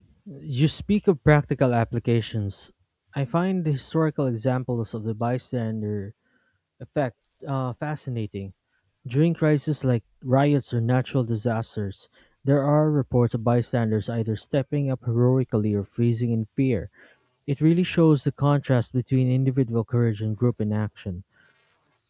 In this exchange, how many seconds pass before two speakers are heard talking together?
none

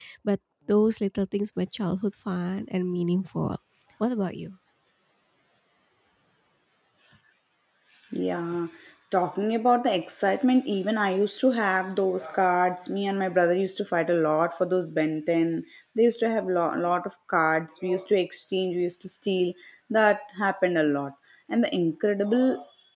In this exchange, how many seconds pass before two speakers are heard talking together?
none

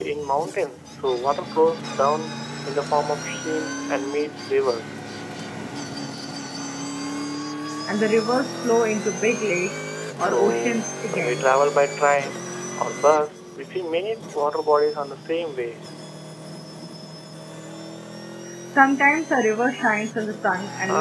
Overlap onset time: 10.2 s

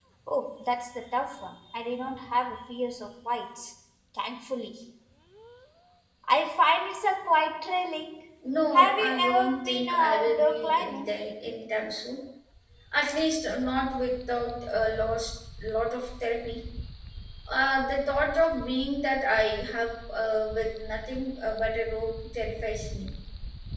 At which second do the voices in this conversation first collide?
8.7 s

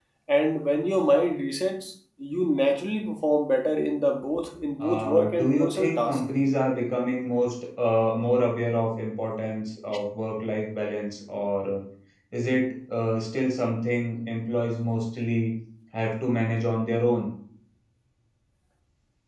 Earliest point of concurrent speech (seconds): 4.8 s

